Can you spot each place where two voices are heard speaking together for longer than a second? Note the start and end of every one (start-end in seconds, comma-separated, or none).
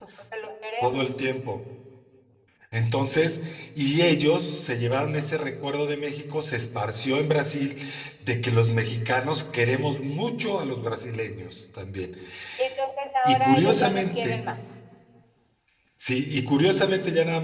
13.2-14.5